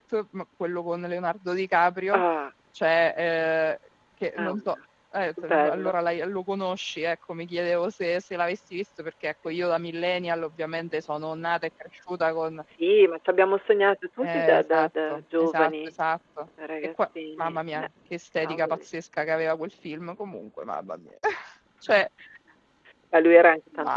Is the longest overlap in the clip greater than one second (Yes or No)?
Yes